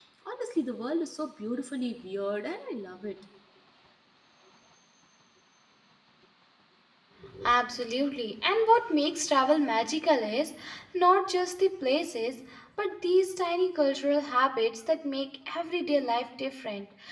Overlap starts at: none

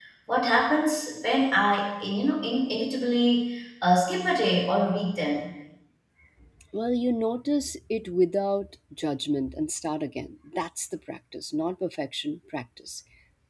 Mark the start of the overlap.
none

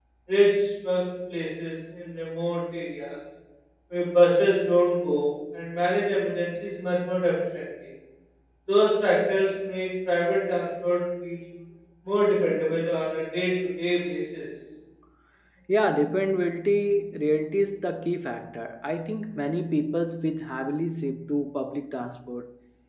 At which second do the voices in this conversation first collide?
none

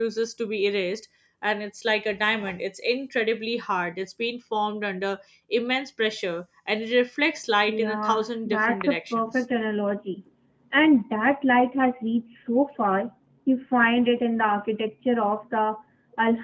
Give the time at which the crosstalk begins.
7.7 s

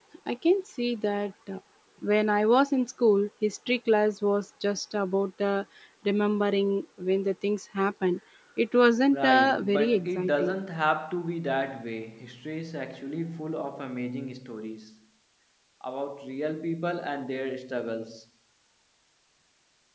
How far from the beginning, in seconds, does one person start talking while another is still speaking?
9.1 s

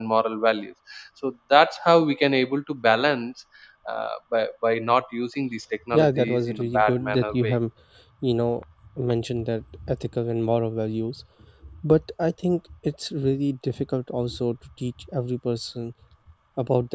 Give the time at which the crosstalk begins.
5.9 s

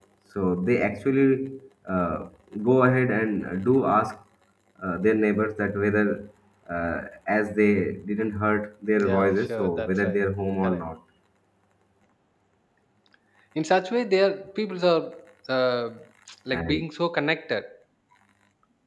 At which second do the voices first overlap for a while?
8.9 s

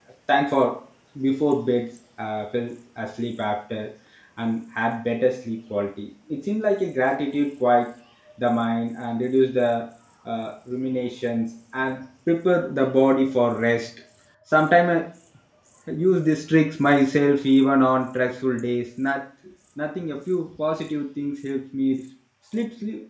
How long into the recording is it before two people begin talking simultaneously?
none

